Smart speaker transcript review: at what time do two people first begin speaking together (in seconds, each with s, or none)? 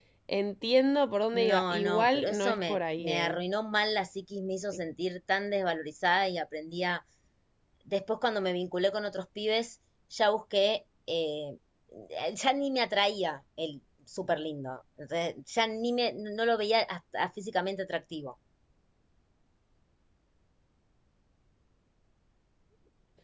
1.3 s